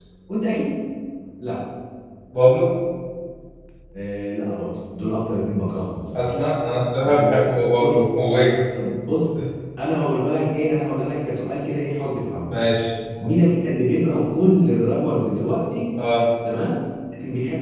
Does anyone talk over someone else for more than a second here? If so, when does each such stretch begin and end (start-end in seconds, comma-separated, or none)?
none